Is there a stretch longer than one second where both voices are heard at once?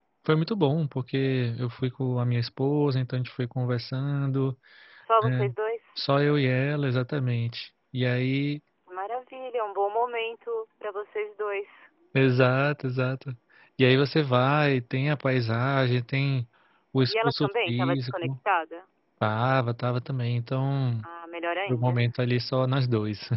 Yes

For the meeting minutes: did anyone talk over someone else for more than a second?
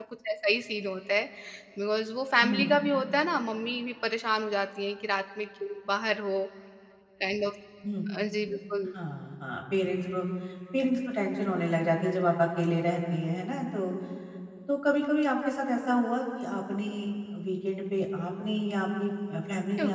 No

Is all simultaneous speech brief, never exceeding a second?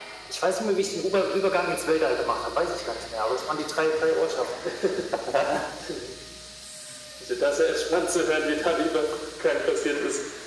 Yes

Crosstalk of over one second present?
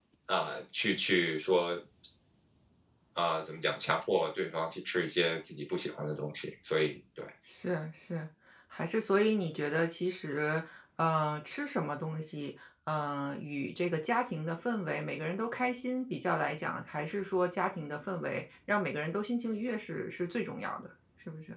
No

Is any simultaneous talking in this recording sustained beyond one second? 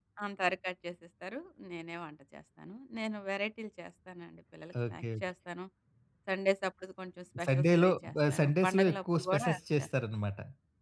Yes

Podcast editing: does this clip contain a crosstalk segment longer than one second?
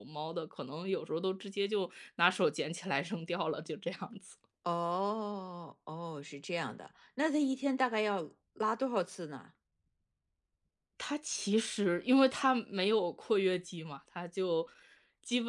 No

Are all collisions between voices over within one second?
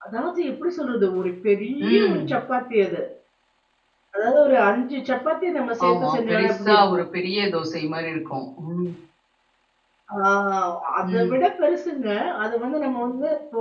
No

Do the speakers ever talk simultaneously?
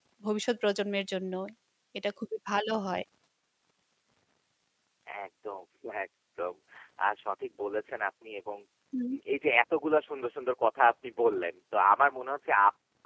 No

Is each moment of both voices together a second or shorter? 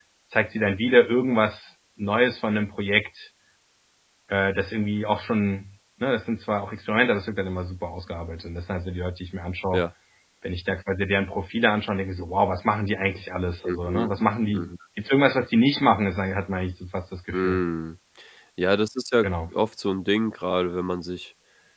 Yes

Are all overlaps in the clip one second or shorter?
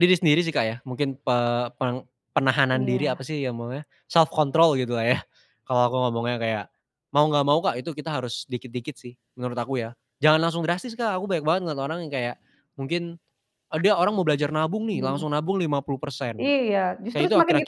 Yes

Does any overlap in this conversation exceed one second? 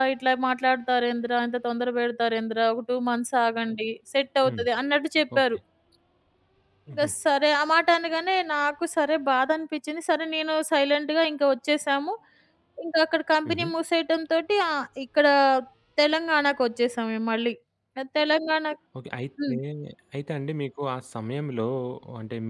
No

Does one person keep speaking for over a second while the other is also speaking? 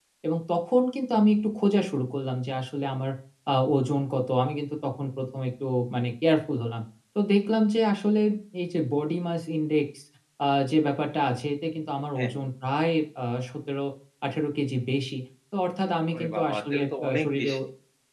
Yes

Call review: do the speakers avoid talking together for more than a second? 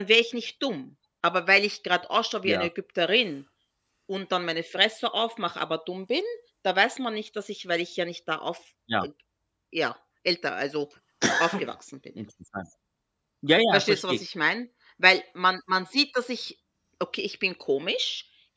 Yes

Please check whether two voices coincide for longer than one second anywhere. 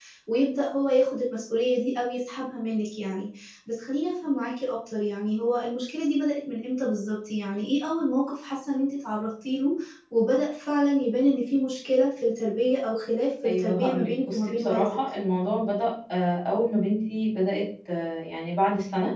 Yes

